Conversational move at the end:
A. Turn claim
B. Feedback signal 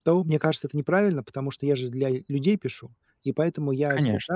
B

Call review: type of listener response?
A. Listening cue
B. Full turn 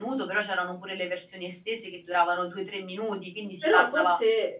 B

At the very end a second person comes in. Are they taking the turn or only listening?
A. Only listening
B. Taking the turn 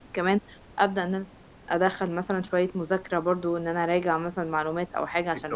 A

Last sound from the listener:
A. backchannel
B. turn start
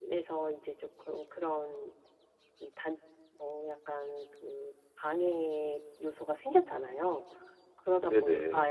A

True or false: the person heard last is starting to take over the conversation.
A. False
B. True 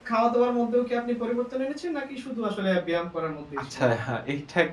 B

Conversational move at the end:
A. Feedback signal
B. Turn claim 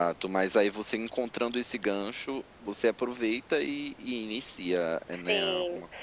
B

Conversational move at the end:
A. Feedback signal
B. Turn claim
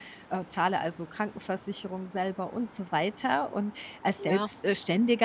A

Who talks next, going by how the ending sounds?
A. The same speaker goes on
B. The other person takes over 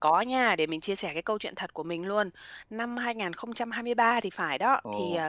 A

